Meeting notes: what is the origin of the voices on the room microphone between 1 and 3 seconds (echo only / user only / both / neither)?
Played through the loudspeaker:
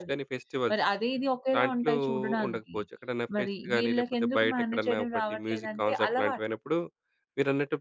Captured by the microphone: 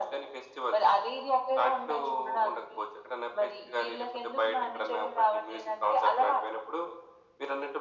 echo only